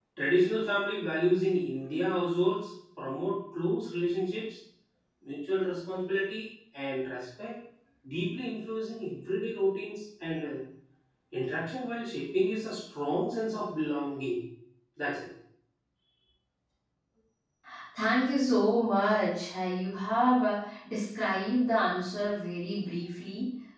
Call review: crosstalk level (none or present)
none